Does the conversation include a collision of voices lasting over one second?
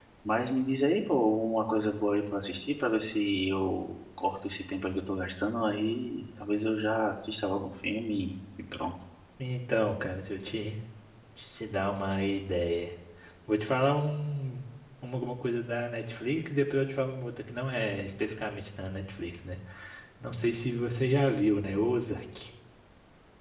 No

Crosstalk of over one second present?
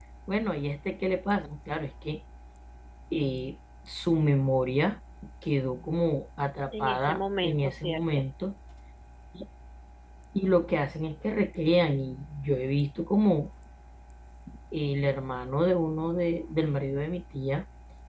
Yes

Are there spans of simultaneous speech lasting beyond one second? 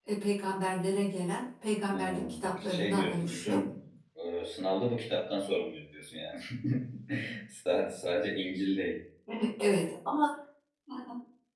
Yes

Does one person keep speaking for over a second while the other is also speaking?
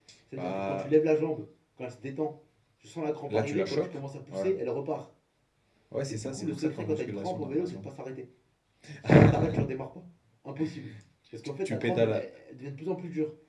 Yes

